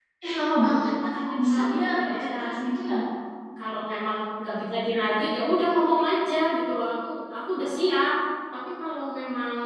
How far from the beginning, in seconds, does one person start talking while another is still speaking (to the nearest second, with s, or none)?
1 s